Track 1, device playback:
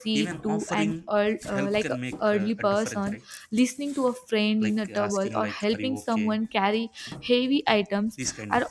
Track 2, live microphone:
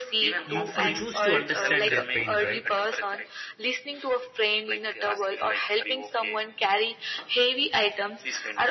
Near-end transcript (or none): you you choose to understand their pain right